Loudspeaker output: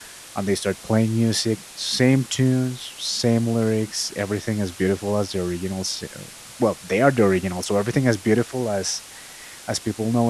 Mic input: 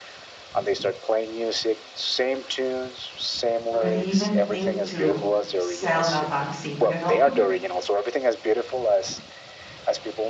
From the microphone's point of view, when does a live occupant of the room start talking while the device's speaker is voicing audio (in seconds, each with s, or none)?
3.7 s